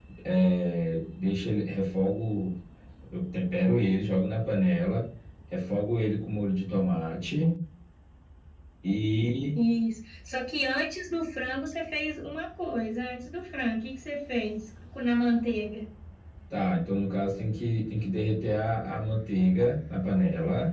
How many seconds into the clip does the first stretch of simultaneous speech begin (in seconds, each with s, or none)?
none